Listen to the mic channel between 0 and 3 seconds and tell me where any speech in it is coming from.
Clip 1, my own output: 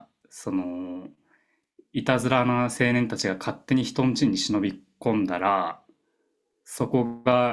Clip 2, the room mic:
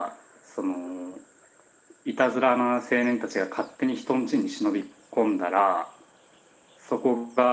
echo only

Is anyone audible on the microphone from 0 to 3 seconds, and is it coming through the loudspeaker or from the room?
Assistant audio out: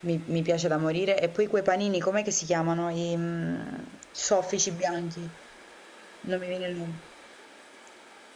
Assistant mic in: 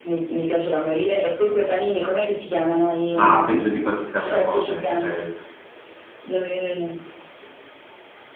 echo only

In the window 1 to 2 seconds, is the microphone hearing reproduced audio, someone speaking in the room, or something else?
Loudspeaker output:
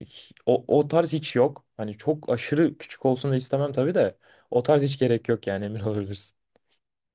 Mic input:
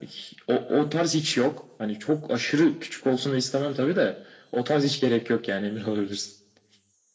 echo only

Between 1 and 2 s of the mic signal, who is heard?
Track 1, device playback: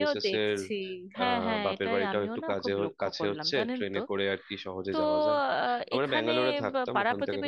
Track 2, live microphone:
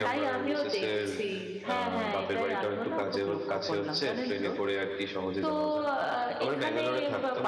echo only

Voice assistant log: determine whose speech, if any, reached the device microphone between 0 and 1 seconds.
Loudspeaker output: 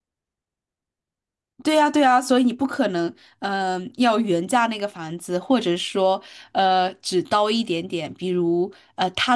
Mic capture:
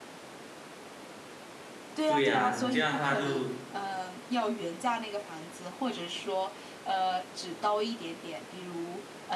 neither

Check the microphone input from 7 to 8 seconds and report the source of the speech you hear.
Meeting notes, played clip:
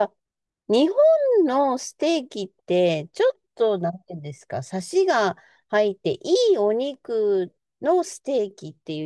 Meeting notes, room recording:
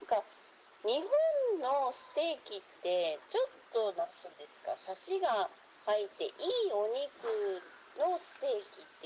echo only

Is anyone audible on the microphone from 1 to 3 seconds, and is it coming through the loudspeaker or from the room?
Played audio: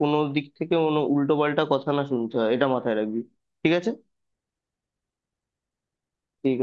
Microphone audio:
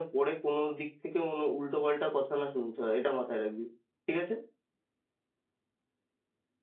echo only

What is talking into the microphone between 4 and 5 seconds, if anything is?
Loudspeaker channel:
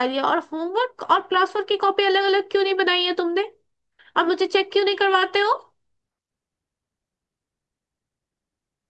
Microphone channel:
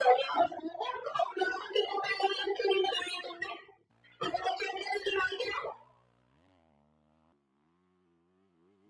echo only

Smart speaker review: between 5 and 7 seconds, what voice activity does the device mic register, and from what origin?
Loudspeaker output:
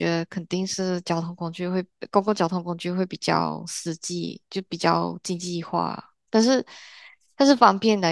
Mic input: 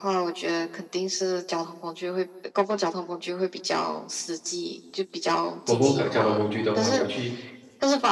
both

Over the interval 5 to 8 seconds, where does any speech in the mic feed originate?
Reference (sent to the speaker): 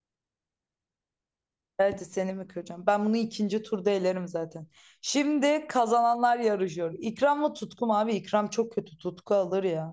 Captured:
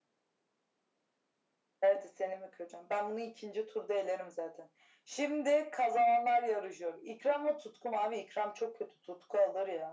echo only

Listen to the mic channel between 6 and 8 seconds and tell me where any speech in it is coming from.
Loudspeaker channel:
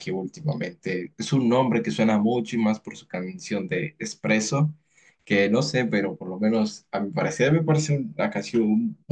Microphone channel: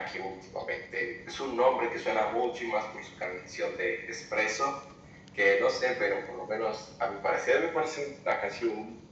echo only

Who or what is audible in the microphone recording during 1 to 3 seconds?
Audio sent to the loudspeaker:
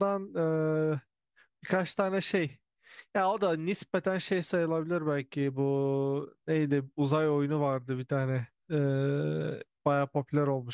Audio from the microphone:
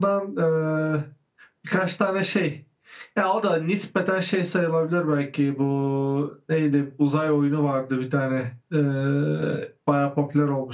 echo only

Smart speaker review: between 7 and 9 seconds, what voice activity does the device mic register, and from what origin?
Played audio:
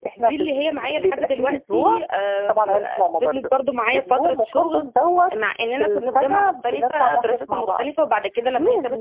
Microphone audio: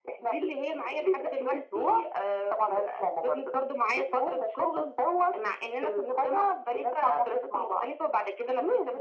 echo only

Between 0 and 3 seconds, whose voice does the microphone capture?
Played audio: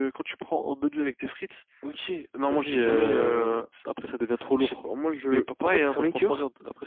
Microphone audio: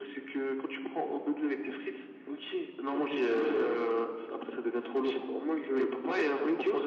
echo only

